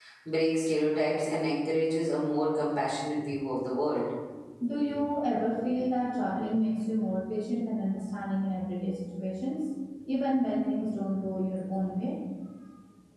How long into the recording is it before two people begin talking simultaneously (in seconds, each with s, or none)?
none